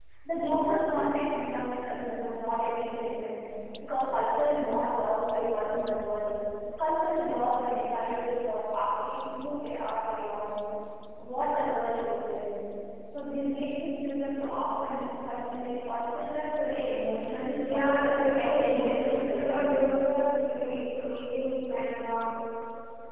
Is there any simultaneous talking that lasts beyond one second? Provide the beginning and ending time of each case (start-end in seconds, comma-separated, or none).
17.6-19.7